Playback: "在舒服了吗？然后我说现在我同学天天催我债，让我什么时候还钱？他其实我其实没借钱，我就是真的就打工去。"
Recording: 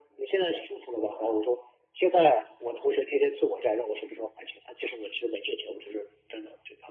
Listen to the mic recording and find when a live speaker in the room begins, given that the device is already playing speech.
none

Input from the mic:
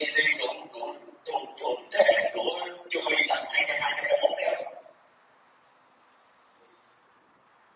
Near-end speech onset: none

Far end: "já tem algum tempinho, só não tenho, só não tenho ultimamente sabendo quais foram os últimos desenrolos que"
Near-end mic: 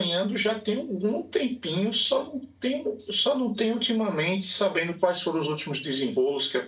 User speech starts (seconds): none

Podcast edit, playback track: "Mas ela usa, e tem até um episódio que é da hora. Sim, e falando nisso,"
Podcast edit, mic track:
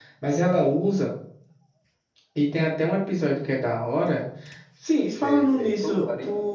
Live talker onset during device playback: 5 s

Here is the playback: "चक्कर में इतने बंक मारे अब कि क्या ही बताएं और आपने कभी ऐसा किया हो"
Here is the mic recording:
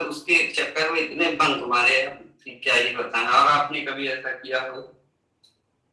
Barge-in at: none

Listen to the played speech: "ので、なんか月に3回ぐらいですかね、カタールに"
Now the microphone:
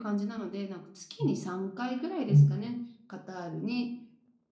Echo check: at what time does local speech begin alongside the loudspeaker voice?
1 s

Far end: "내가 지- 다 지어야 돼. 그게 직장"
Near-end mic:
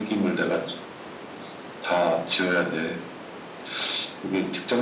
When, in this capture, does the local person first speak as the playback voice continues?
none

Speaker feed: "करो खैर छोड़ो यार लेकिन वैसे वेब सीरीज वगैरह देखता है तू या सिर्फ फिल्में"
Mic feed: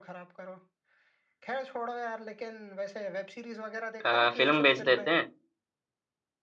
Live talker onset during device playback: 4 s

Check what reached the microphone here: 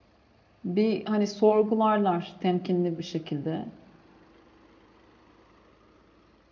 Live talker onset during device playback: 1 s

